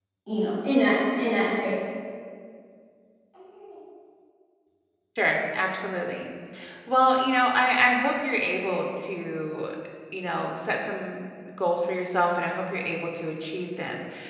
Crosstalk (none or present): none